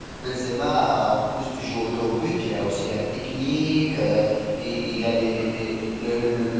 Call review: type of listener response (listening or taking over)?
listening